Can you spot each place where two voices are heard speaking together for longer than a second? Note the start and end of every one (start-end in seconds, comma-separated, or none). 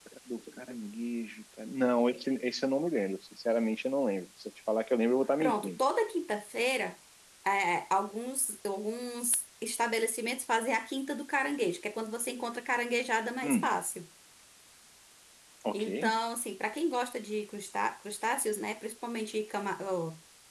none